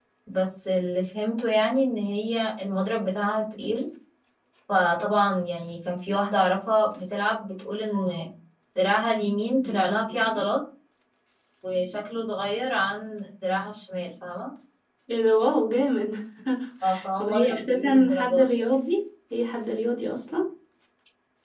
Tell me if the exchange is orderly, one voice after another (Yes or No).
No